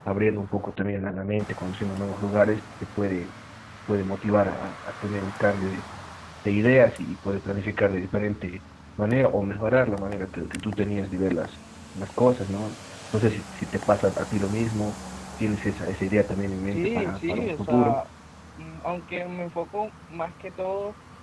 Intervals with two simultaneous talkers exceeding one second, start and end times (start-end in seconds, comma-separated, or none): 16.7-18.0